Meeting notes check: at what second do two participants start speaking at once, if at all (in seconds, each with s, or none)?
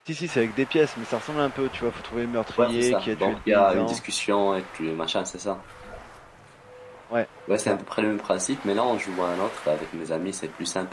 2.6 s